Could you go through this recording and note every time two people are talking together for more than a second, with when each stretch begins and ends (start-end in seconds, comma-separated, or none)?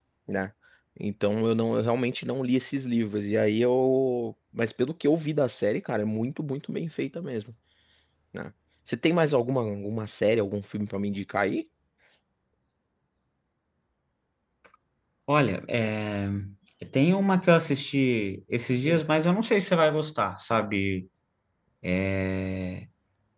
none